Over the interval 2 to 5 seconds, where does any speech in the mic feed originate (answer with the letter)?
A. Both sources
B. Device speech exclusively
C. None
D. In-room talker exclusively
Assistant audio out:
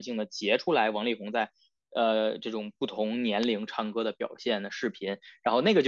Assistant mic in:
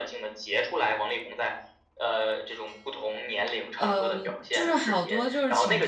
A